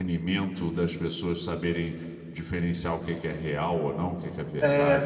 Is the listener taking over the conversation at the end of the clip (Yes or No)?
Yes